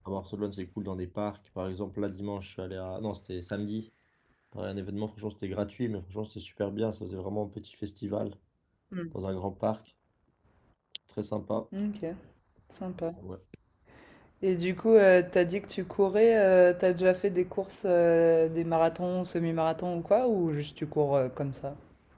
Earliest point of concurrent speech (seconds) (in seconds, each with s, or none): none